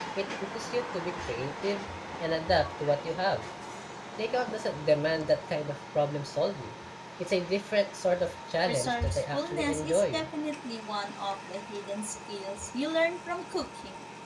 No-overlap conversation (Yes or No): No